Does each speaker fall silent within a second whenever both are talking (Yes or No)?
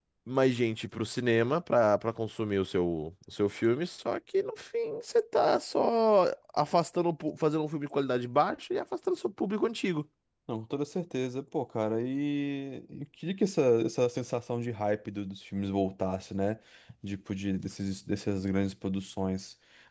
Yes